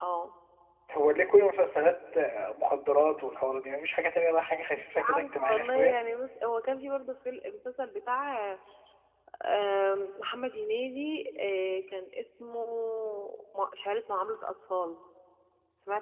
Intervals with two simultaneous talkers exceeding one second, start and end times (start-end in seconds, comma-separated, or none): 4.7-6.0